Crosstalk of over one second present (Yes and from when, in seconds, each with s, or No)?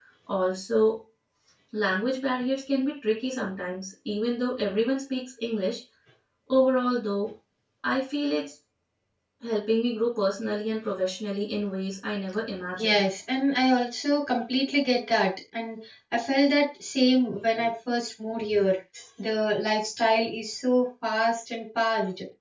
No